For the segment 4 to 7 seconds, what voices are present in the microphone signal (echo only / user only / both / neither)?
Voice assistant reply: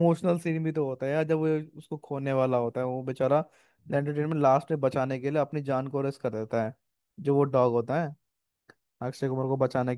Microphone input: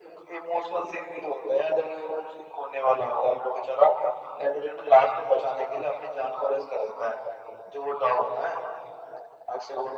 echo only